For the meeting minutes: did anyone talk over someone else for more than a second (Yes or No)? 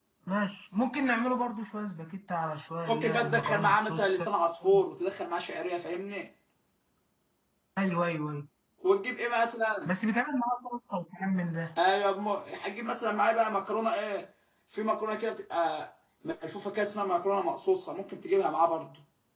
Yes